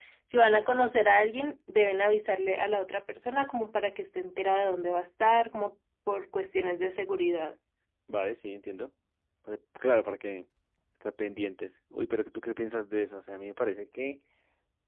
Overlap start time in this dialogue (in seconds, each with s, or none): none